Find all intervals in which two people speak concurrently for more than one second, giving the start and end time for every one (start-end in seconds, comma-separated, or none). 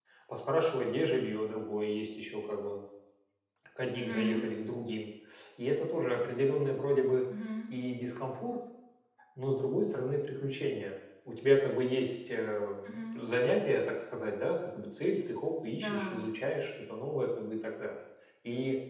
none